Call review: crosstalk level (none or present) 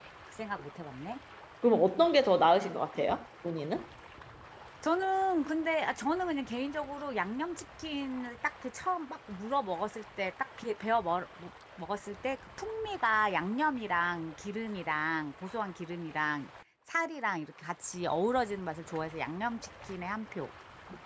none